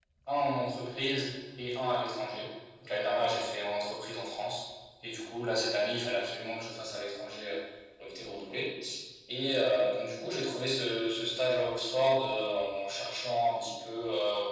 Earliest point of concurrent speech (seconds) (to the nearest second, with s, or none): none